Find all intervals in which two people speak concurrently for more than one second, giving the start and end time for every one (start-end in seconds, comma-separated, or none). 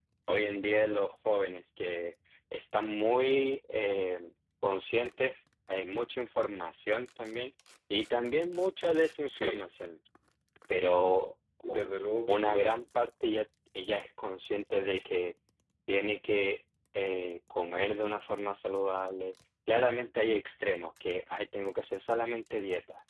none